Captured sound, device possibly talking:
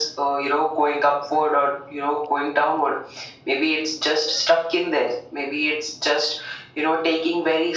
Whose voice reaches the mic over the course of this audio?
echo only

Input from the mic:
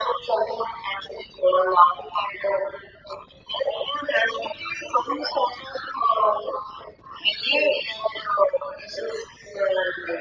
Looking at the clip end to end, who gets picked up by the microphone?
echo only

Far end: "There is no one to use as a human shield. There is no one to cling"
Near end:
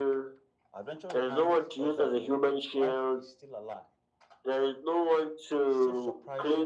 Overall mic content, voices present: both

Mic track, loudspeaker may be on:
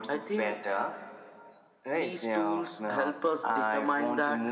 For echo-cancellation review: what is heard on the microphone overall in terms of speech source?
echo only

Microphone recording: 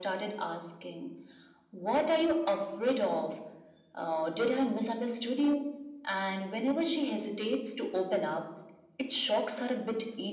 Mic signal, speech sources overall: echo only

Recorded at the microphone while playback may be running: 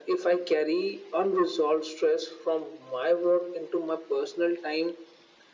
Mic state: echo only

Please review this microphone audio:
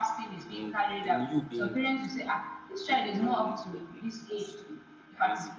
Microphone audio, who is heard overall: both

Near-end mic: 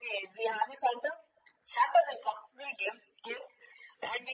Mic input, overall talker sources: echo only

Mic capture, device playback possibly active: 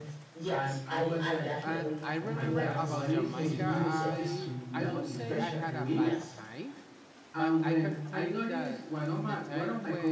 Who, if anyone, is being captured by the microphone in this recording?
both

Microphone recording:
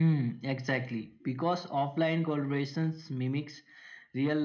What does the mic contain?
echo only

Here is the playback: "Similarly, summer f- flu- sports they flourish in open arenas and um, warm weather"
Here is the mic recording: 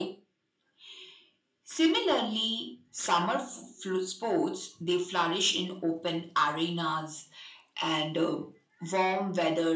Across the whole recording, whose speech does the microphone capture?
echo only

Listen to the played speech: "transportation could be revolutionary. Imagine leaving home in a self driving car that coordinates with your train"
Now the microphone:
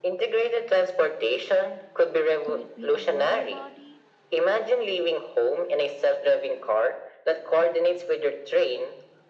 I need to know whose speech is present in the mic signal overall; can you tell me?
both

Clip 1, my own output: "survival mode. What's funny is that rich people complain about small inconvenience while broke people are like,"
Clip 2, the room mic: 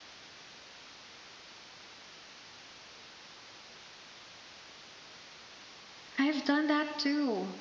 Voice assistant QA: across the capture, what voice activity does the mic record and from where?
user only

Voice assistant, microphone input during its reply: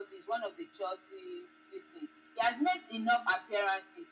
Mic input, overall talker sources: echo only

